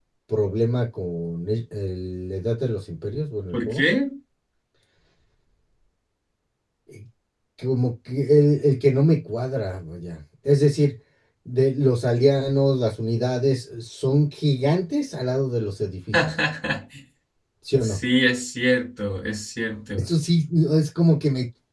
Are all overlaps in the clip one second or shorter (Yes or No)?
Yes